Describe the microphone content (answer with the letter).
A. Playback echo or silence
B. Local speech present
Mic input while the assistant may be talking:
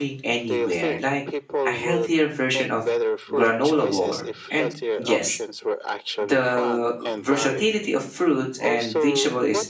B